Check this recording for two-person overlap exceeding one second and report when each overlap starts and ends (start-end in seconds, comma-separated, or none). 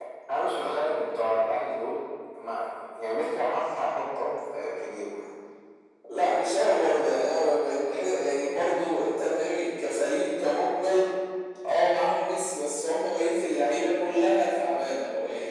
none